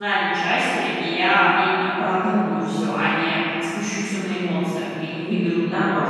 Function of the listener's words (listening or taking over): taking over